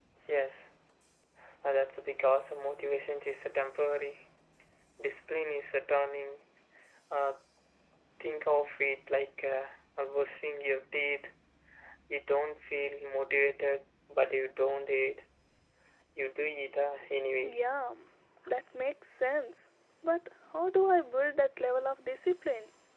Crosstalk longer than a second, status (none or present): none